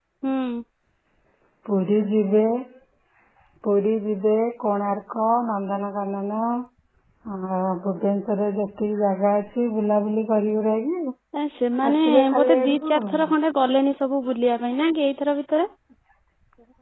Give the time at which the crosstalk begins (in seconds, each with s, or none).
11.9 s